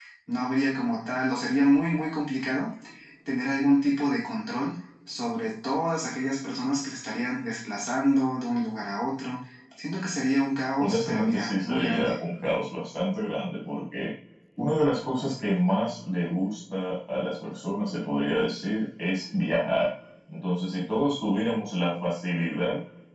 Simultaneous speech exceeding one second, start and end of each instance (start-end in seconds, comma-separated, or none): 10.8-12.1